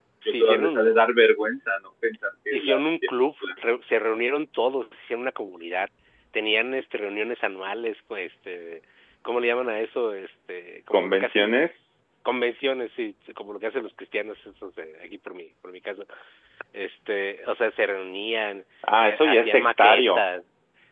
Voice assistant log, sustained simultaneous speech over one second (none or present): present